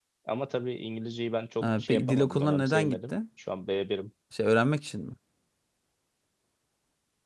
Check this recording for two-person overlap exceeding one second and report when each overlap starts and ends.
1.6-3.1

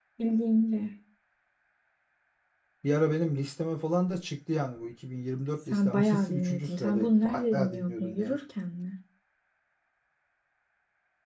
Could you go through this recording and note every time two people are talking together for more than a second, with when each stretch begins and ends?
5.7-8.4

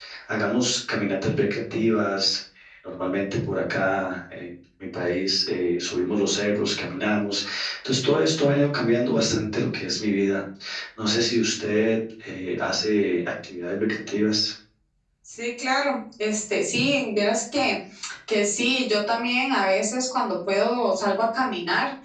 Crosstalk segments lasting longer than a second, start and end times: none

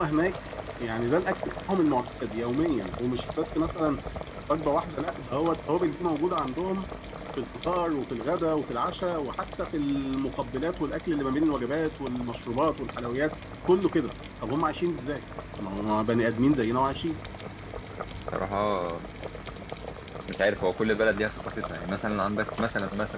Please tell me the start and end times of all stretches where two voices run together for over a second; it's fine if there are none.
none

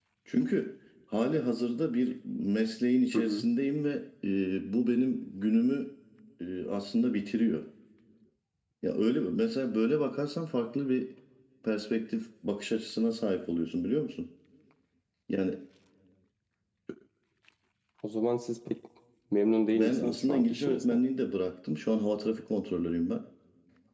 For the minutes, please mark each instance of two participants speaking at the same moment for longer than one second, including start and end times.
19.7-21.0

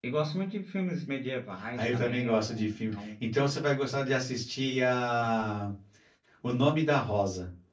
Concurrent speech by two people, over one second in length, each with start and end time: 1.8-3.1

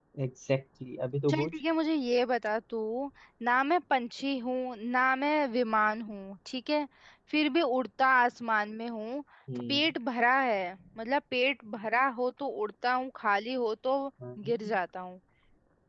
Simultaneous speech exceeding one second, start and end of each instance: none

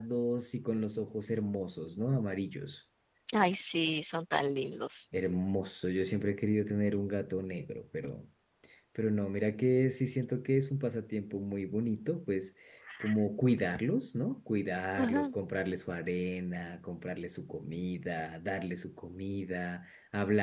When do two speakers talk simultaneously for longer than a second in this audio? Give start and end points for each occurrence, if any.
none

